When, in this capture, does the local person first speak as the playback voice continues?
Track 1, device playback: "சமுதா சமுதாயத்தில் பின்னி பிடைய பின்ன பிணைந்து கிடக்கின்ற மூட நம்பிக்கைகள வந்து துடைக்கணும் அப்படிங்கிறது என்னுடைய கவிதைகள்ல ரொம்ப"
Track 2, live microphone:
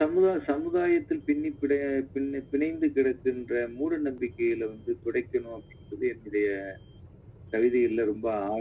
none

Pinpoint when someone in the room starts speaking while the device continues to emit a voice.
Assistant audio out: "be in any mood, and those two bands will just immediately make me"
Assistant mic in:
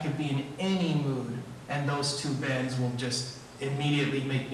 none

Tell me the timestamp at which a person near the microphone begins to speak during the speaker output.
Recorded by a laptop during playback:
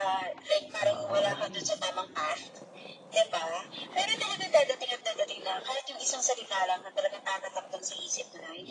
0.8 s

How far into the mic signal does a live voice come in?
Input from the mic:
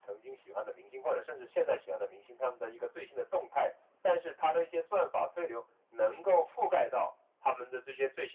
none

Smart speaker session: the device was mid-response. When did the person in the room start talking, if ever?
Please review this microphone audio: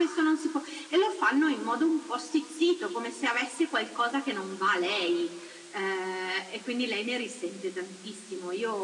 none

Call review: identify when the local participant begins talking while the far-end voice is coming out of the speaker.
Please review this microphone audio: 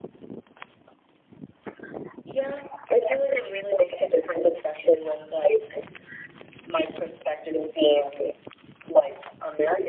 none

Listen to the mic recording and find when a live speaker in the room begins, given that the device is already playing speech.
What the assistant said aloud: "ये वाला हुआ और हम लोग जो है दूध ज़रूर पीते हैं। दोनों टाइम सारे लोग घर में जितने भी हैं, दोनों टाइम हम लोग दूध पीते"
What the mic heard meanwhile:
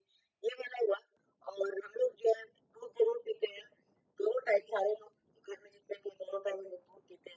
none

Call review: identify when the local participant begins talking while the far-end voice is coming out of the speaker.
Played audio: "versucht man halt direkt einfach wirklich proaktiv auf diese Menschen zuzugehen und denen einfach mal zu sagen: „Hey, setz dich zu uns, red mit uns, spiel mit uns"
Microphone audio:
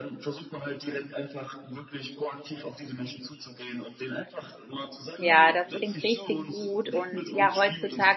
5.2 s

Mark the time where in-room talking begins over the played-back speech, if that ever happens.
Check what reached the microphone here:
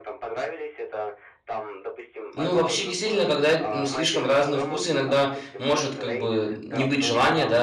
2.3 s

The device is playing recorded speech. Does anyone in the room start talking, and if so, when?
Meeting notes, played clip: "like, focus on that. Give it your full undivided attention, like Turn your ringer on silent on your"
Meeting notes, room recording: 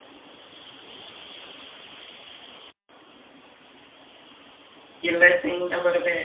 5.0 s

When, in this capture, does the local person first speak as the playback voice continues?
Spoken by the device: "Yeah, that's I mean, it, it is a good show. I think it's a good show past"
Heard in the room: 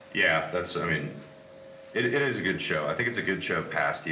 none

